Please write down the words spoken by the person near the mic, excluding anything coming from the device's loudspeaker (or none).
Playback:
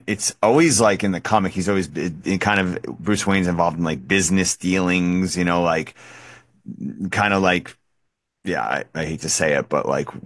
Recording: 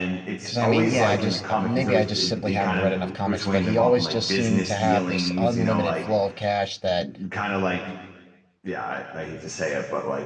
Because I mean, yeah, I just uh, maybe I just simply haven't read enough comics, but he always just seemed to have this unlimited flow of cash that